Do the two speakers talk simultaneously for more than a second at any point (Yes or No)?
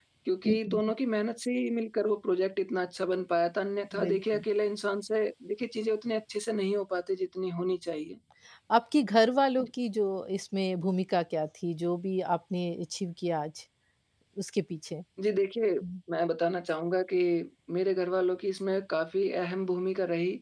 No